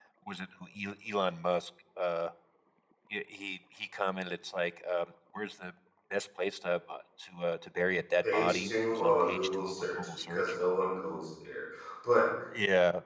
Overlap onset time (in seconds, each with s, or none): 8.2 s